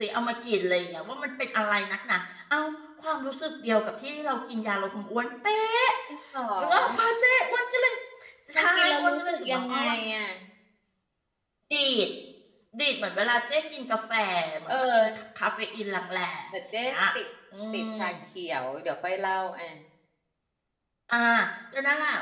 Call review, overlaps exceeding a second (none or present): present